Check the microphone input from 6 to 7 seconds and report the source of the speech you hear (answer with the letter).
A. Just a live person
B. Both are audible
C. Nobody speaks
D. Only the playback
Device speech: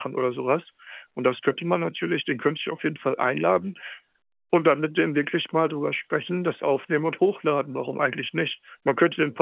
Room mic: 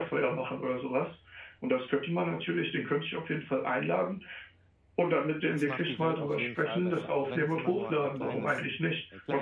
B